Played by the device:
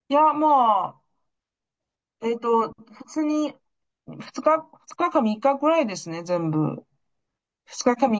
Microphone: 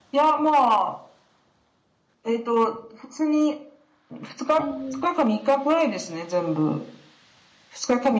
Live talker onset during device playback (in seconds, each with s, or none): 4.6 s